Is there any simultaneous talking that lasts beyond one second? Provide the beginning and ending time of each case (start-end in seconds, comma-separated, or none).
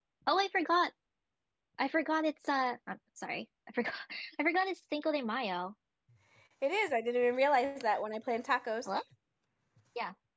none